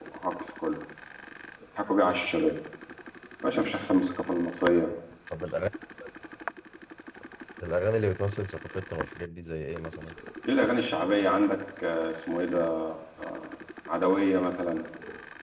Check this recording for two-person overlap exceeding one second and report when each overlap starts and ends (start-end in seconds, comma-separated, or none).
none